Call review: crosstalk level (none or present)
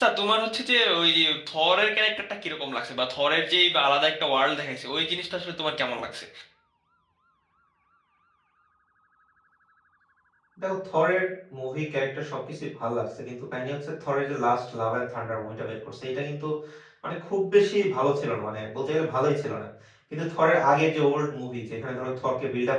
none